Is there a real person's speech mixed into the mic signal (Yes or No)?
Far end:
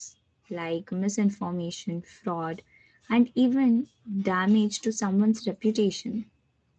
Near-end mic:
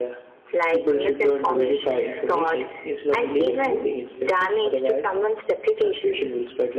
Yes